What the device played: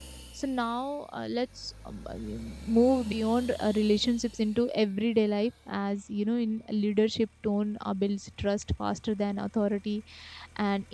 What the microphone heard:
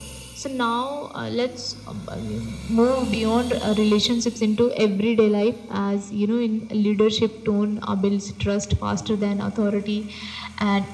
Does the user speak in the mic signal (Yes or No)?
No